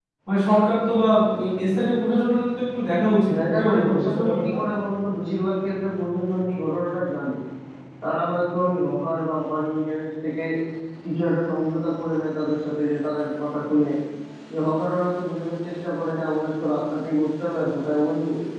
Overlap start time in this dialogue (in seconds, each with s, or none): 3.3 s